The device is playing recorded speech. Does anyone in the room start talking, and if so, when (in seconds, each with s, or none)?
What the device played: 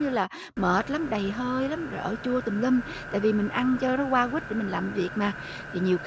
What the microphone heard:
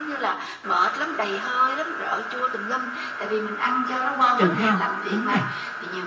4.3 s